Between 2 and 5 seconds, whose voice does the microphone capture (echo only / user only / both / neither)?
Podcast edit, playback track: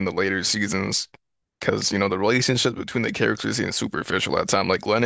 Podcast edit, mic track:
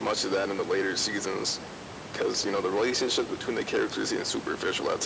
echo only